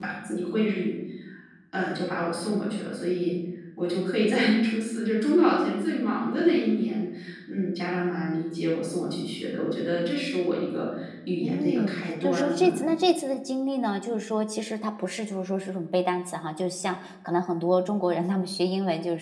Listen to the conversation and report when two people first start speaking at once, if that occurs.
11.4 s

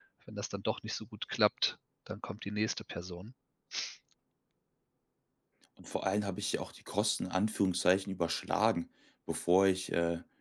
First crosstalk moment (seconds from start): none

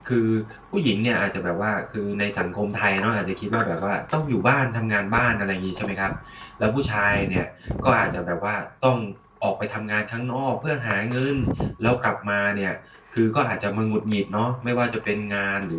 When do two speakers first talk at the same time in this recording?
none

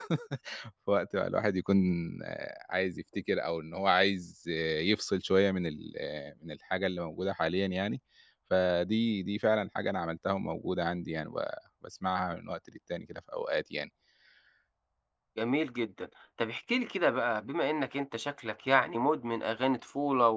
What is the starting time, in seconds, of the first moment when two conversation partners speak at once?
none

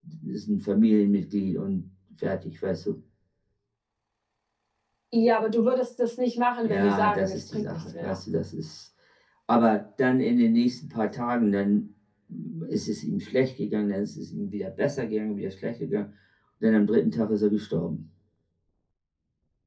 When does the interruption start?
6.7 s

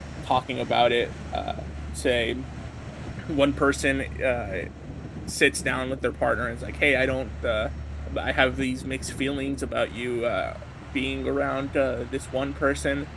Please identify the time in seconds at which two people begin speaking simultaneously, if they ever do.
none

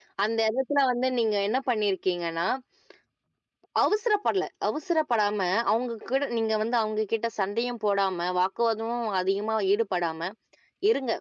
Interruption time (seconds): none

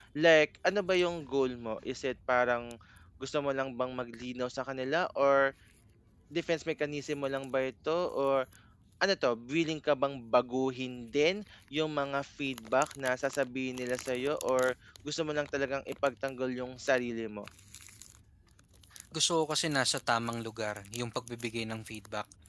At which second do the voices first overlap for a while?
none

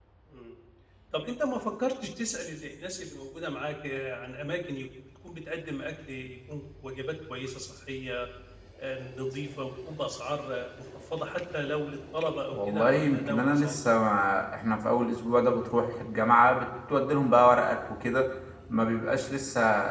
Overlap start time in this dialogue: 12.5 s

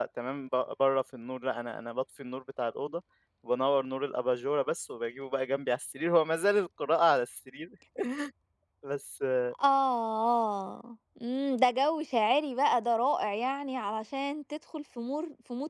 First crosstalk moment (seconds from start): none

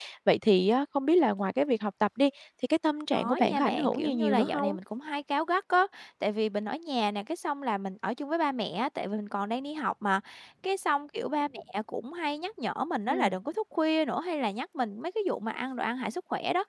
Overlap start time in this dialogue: 3.2 s

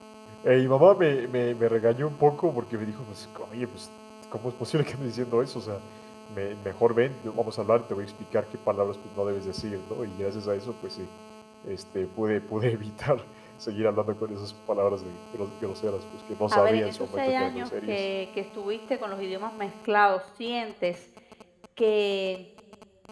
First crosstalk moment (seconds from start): 16.5 s

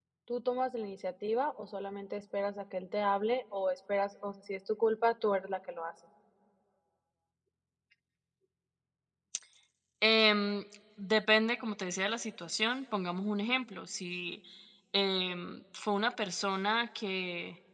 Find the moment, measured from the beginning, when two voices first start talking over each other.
none

